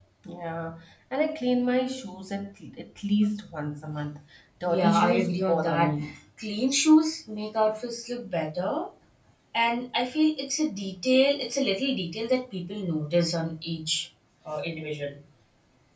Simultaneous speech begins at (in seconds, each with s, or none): 4.7 s